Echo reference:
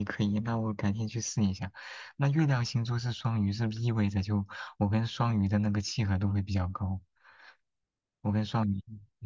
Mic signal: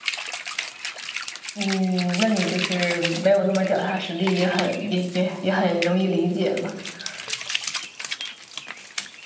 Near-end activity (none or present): present